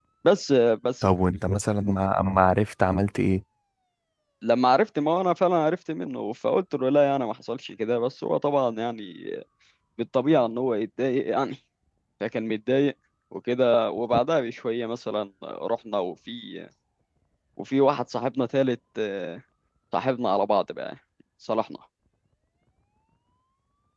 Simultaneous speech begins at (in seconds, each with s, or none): none